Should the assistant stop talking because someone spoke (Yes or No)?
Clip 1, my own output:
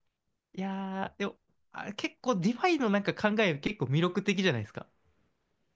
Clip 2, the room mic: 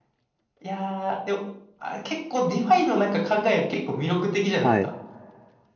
Yes